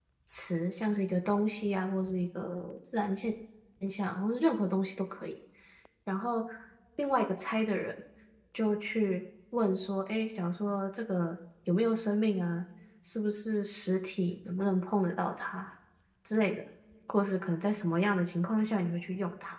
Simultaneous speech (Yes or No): No